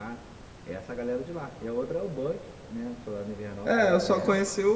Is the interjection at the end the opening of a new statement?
Yes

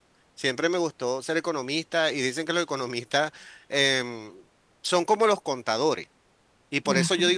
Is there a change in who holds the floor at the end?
No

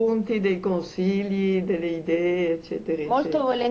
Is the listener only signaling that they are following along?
No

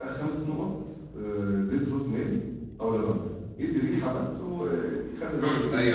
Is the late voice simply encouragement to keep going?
No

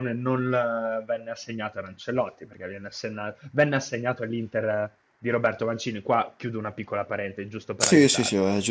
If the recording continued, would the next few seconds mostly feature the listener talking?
Yes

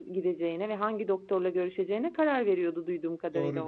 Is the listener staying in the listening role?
No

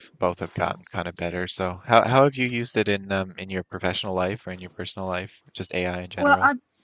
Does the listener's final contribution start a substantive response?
Yes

